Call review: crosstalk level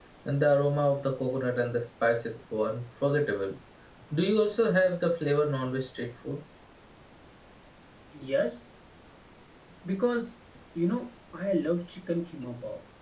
none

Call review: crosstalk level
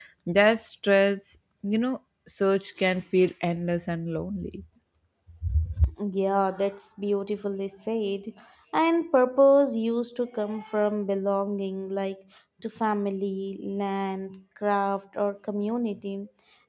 none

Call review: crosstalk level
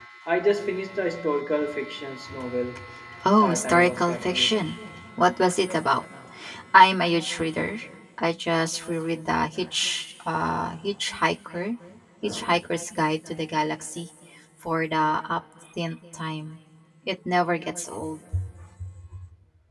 present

